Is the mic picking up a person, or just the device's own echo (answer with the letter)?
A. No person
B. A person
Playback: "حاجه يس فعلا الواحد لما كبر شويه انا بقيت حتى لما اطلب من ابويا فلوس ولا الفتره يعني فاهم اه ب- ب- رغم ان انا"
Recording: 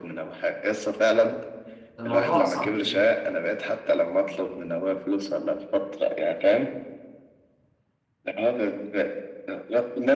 B